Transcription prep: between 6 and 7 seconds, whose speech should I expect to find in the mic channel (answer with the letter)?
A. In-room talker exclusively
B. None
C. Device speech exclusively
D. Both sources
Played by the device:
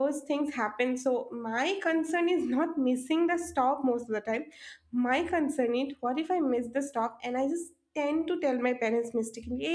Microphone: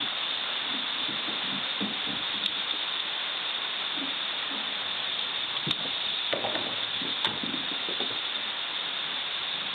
B